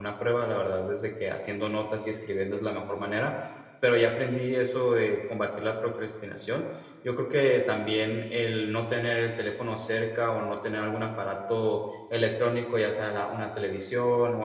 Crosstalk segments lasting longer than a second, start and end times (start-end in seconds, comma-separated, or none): none